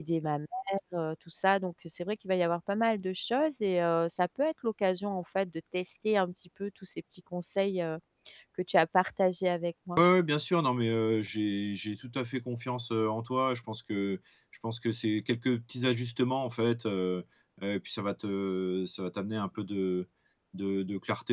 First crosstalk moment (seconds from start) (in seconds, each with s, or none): none